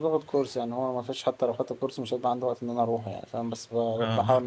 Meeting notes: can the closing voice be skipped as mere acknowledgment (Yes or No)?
Yes